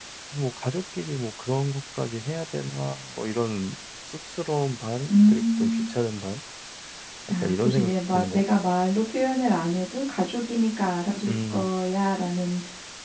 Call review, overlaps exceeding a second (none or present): present